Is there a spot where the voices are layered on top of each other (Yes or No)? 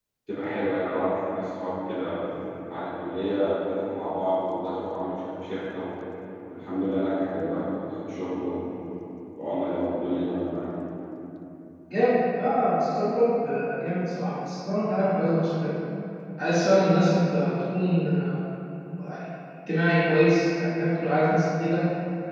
No